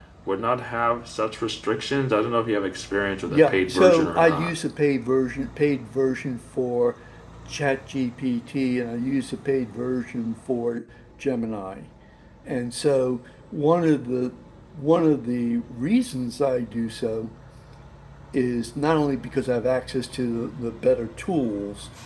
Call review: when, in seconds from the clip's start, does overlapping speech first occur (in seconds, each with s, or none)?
3.3 s